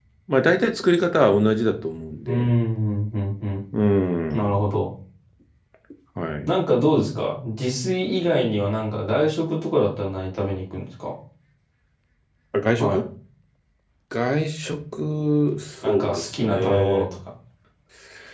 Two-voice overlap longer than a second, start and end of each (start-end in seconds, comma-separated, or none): 15.8-17.1